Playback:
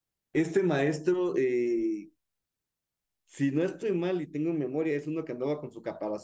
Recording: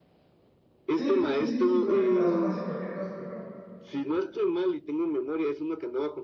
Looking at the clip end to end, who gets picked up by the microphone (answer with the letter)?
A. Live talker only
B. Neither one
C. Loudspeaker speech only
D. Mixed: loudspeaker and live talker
D